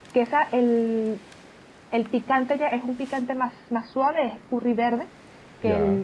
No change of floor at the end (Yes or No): Yes